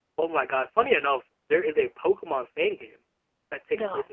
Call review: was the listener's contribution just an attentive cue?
Yes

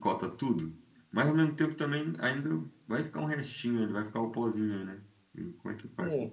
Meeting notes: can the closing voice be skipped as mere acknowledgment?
No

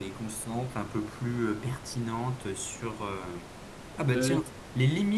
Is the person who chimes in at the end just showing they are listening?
Yes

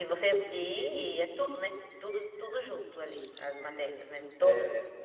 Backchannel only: No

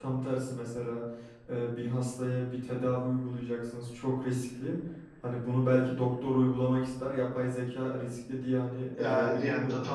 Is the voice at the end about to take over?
Yes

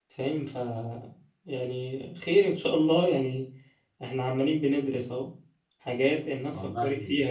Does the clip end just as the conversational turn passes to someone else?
No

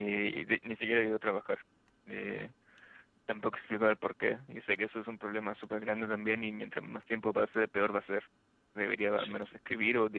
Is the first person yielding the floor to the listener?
No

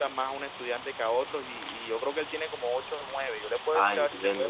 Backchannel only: No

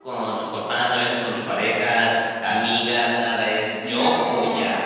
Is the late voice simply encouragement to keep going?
No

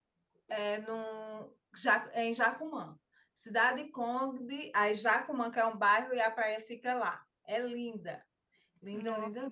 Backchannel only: No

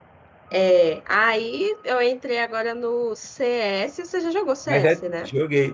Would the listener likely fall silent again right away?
No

